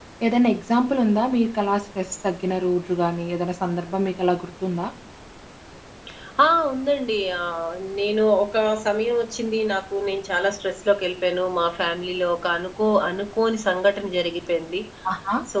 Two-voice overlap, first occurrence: none

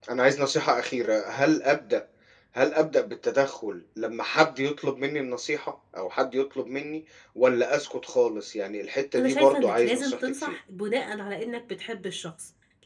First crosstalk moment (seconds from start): 9.2 s

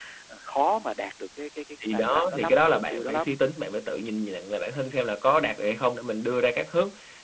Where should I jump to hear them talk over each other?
1.8 s

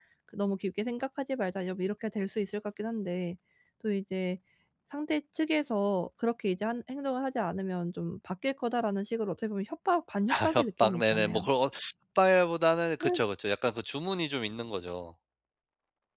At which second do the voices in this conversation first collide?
10.3 s

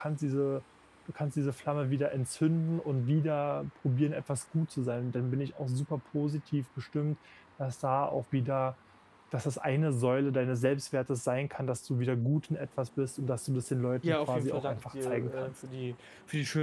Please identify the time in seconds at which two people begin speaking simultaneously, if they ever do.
14.0 s

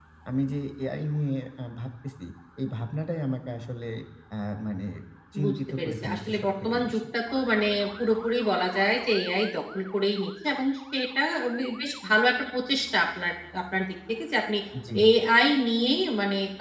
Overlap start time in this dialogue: 5.4 s

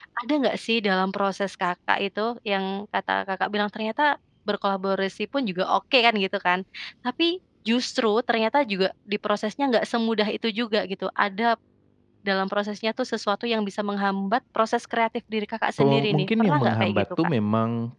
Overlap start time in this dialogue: 15.8 s

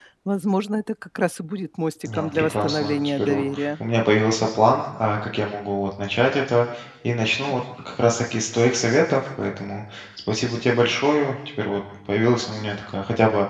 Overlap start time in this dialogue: 2.0 s

